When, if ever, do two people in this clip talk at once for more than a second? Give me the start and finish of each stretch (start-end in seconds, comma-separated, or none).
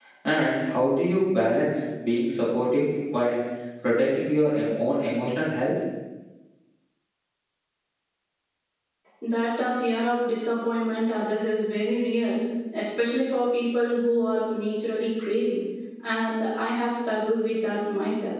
none